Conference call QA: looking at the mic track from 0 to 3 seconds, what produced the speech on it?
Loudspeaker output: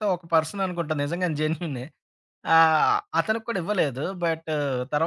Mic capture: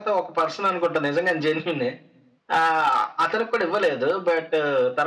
echo only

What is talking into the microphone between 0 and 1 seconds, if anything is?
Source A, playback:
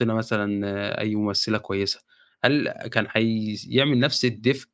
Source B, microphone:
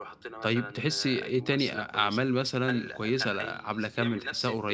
both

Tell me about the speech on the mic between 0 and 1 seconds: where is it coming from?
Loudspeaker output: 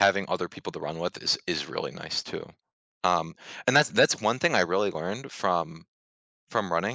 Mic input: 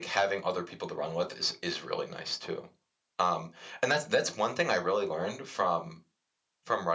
echo only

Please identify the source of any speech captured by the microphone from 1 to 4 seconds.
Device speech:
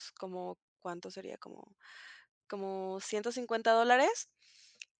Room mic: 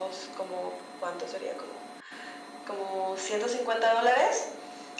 echo only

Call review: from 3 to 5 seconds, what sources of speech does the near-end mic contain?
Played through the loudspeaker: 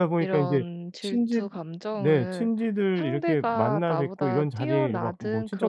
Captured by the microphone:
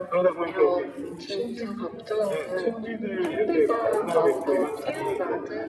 echo only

